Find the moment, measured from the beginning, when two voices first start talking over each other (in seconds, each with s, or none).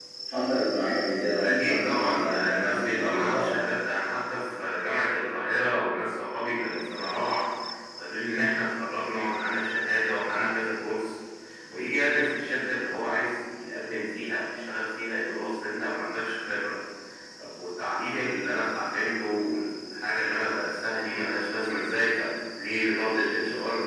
1.4 s